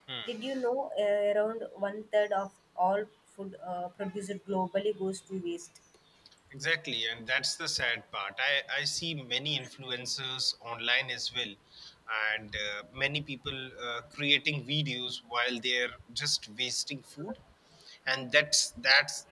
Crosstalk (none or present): none